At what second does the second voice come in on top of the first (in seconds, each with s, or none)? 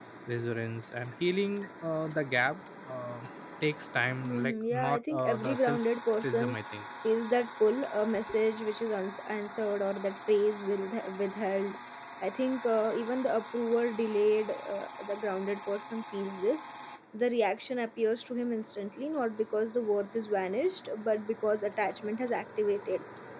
4.2 s